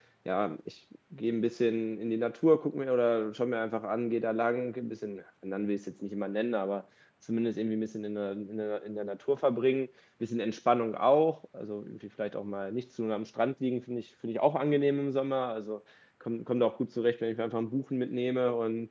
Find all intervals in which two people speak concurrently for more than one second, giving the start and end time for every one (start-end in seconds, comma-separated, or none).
none